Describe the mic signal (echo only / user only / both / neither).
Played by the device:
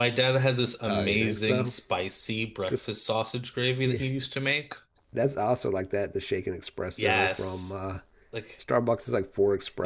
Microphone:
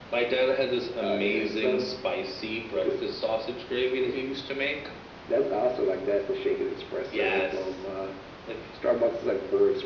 echo only